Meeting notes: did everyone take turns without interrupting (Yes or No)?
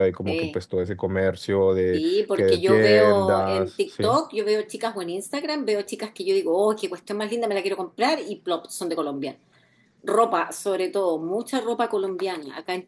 No